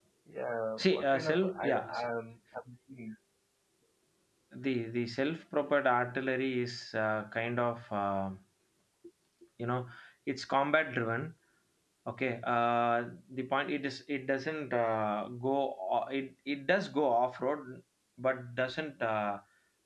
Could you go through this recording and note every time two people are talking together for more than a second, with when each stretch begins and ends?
0.8-2.1

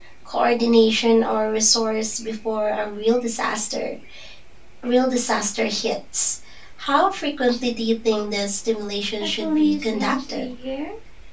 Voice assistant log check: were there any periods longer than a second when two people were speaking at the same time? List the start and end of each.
9.2-10.5

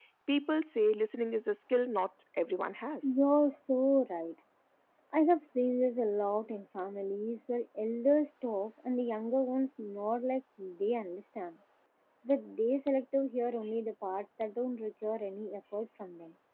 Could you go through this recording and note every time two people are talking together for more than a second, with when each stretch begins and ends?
none

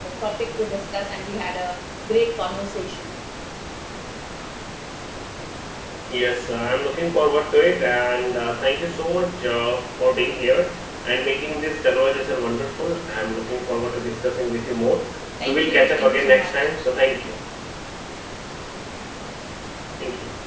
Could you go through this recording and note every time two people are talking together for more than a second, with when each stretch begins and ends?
15.5-16.7

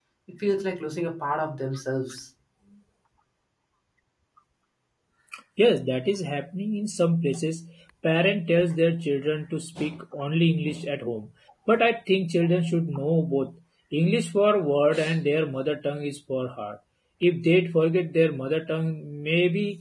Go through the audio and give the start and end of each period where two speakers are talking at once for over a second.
none

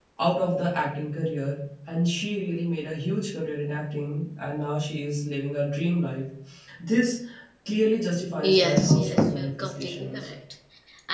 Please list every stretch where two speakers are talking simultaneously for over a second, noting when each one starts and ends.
8.4-10.3

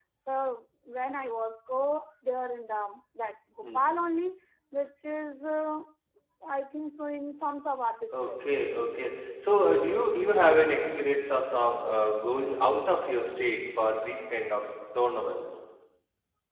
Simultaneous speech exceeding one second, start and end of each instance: none

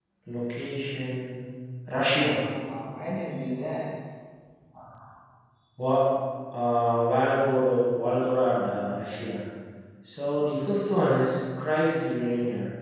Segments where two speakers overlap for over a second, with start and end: none

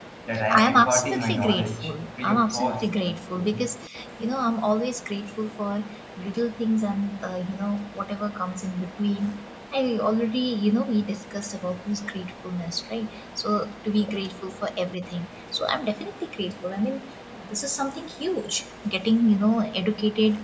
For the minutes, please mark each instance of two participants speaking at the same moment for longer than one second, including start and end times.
0.6-2.9

